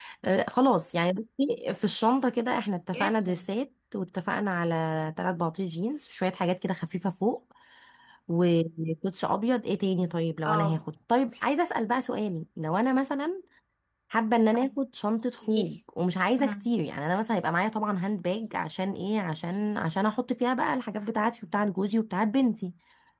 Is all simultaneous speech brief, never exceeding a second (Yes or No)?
Yes